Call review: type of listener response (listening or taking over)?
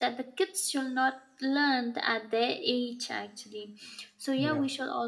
listening